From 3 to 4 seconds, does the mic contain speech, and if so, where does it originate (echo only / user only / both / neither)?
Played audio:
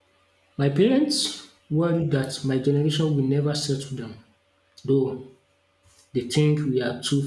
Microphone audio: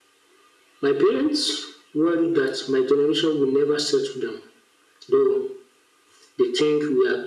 echo only